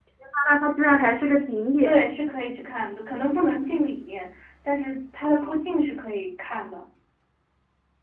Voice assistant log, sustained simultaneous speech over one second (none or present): none